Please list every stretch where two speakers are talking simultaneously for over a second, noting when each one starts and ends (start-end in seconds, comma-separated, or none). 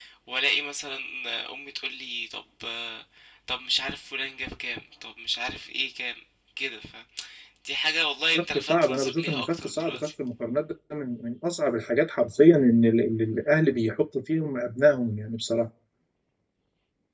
8.5-10.1